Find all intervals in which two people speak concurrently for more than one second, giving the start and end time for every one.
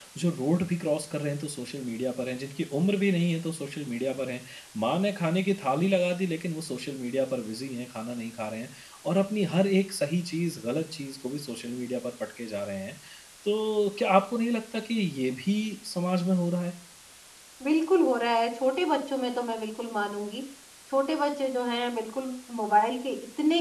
none

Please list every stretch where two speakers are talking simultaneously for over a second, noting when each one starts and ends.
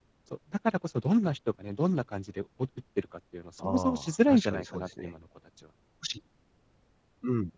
3.6-5.1

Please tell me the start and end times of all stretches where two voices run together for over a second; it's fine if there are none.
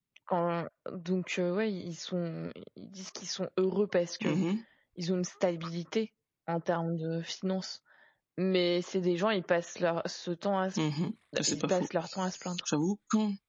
none

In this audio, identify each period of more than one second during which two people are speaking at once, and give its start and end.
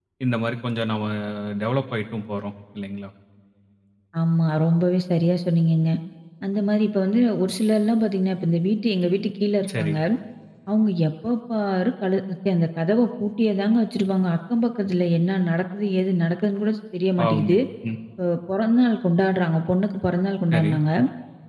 none

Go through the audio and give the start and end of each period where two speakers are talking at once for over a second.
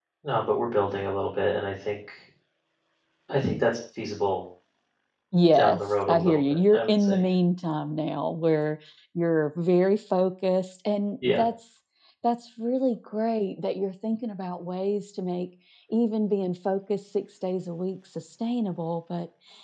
5.5-7.2

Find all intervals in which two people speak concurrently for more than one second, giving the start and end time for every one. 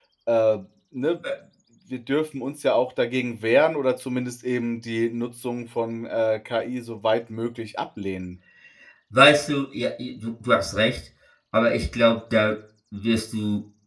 none

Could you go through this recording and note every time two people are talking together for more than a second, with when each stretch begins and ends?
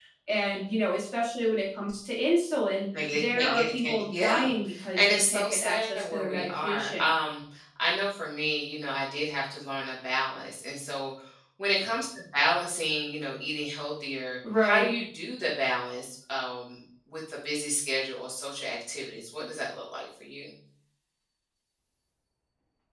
3.0-4.5, 4.9-7.1

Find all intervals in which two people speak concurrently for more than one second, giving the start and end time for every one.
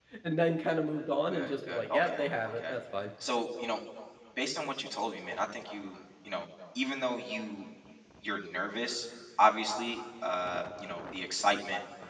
1.3-2.7

